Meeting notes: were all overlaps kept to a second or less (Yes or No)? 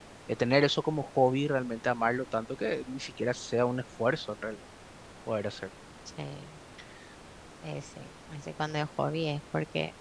Yes